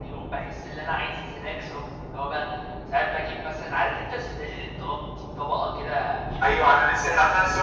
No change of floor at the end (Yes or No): No